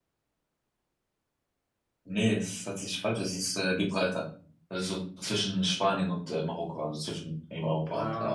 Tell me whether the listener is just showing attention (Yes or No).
No